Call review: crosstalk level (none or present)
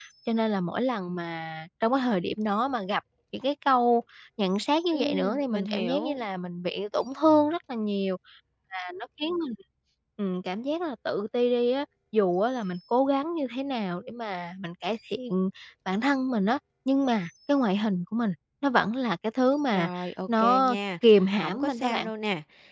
present